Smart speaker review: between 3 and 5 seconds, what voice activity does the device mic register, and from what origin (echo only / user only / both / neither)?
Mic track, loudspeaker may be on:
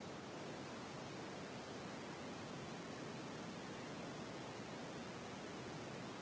neither